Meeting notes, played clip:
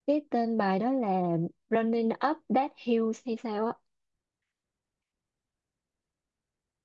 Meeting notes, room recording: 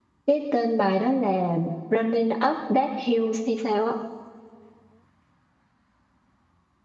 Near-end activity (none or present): none